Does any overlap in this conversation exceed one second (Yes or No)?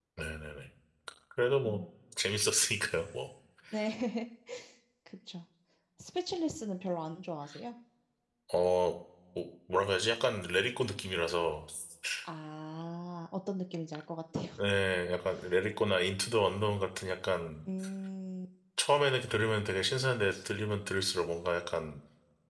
No